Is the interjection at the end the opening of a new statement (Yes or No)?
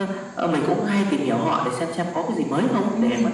Yes